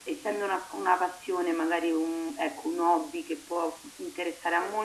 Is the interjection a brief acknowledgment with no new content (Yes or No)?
Yes